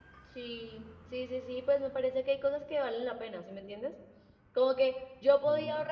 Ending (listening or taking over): listening